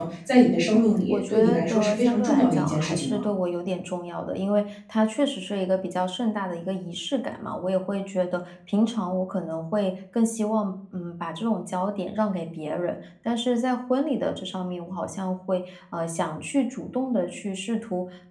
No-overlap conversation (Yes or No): No